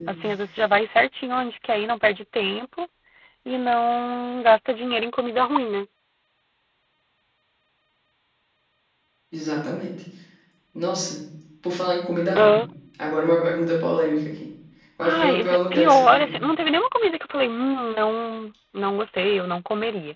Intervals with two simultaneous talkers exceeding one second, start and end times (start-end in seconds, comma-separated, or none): 15.0-16.4